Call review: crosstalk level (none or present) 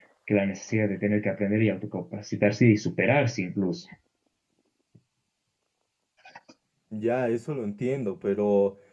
none